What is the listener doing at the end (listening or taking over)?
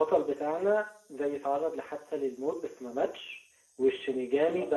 listening